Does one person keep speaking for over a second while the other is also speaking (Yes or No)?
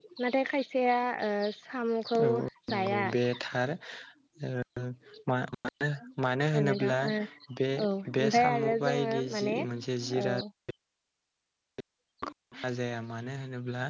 Yes